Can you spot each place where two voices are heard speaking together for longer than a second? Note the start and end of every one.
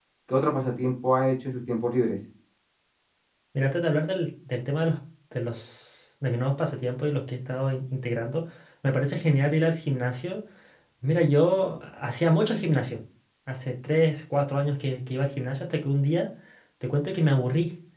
none

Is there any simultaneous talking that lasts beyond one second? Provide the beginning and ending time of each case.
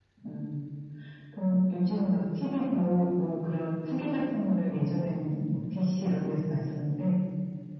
none

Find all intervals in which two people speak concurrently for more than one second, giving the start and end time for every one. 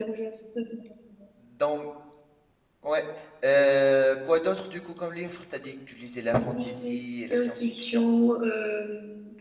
6.5-8.0

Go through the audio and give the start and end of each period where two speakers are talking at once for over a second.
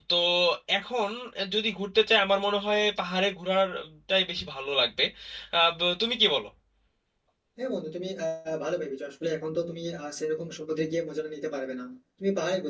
none

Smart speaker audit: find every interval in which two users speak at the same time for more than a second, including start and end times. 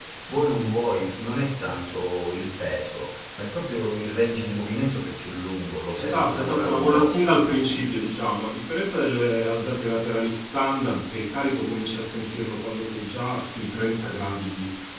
6.0-7.3

